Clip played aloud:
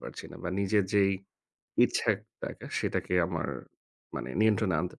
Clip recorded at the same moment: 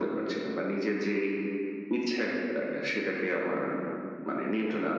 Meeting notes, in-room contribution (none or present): none